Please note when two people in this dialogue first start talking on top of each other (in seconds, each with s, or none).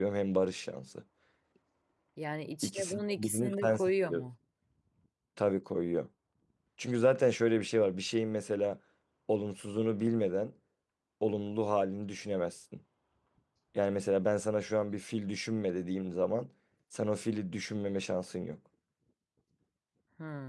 2.6 s